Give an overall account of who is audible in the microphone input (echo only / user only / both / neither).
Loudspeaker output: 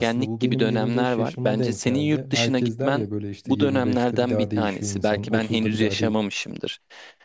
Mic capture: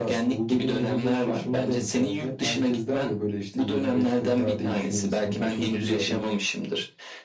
echo only